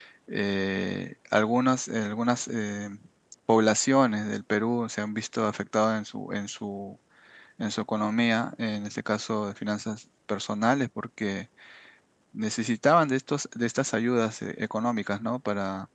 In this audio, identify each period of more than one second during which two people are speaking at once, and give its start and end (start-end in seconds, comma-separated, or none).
none